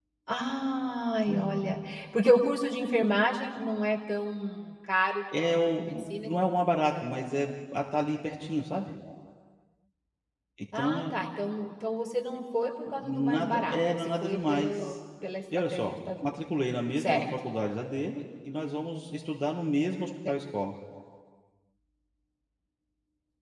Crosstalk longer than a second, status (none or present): present